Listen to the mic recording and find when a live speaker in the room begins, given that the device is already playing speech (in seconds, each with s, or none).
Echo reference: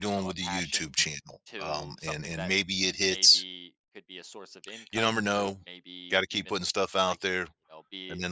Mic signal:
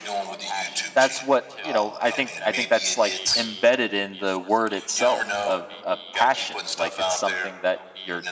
0.9 s